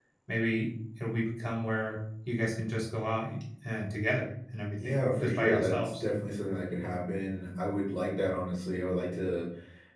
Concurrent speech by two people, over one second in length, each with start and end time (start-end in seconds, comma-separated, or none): 4.8-6.0